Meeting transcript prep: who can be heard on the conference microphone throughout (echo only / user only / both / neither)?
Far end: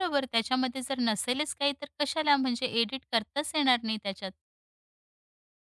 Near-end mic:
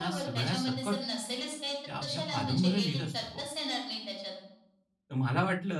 both